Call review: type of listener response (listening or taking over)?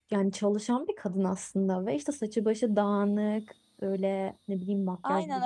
taking over